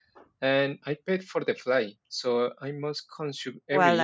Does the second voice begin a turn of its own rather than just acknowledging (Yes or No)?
Yes